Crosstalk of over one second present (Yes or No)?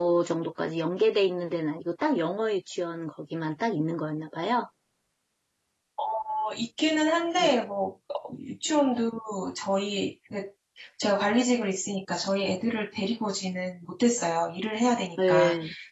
No